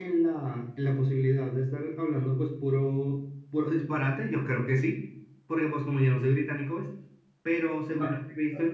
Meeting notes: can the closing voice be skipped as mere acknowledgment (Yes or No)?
Yes